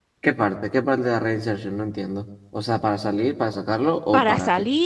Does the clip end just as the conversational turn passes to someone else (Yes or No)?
Yes